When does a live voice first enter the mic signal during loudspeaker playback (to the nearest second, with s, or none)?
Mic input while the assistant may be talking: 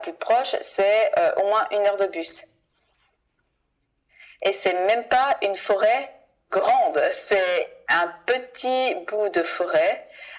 none